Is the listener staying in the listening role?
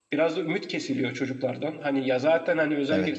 Yes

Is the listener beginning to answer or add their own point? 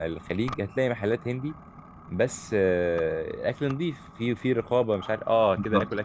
No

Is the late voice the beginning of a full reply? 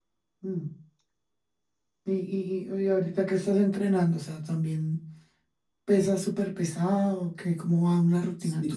Yes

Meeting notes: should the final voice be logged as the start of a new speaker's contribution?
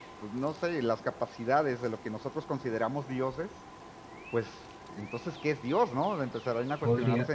Yes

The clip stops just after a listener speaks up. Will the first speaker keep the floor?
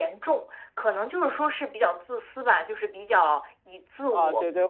No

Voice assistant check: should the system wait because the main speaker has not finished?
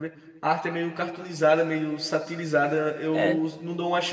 Yes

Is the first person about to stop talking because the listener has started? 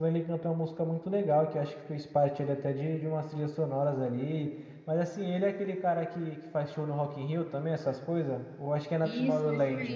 Yes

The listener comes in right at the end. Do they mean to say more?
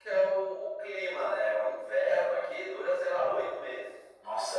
Yes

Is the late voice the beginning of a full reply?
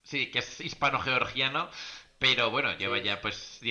No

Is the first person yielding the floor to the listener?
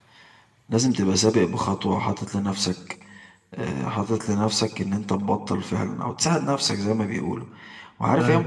No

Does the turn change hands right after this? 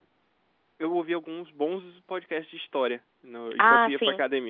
No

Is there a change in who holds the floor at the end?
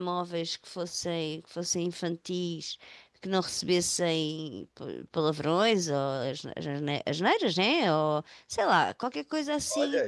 Yes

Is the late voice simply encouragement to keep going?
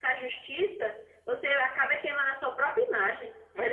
Yes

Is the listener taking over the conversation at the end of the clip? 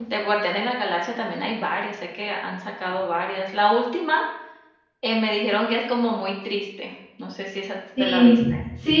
Yes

